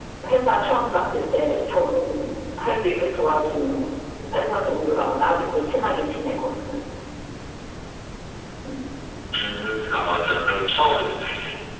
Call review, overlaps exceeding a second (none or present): none